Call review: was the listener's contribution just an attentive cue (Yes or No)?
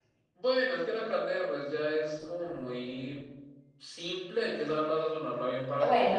No